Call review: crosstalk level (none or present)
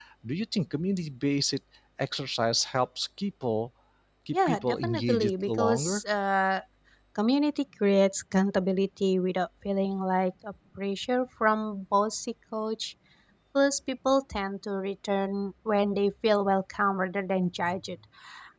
present